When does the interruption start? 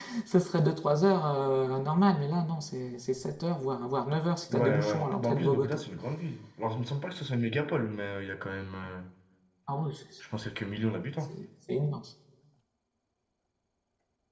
4.5 s

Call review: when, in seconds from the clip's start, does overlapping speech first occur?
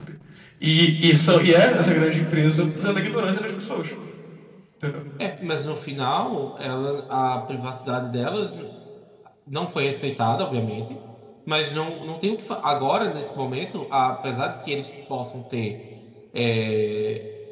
none

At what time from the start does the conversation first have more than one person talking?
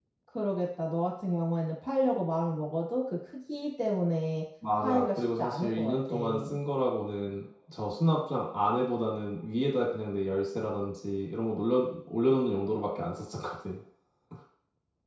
4.6 s

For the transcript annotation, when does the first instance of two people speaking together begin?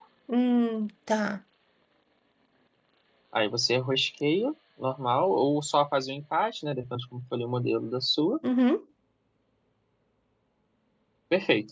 none

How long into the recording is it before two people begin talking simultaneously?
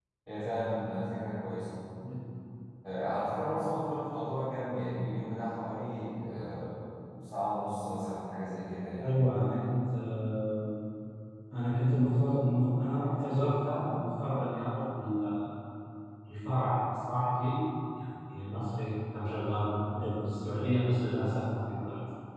none

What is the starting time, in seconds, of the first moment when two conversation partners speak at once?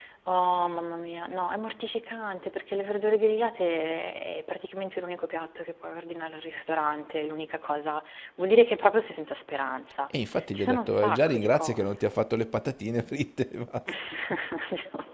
10.5 s

